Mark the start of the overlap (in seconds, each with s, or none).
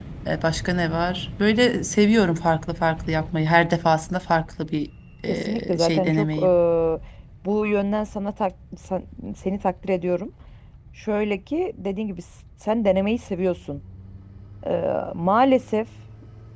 5.3 s